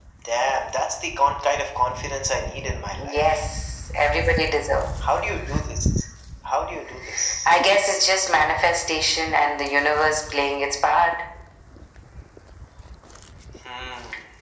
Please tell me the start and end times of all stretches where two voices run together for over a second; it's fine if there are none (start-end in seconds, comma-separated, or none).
none